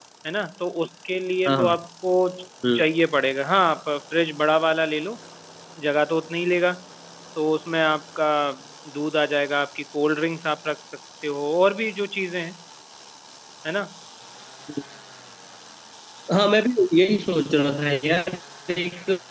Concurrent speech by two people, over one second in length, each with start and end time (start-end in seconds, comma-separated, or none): none